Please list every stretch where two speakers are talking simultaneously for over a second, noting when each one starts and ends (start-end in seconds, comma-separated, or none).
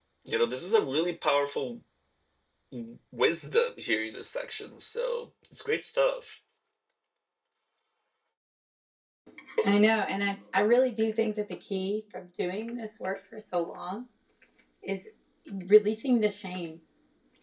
none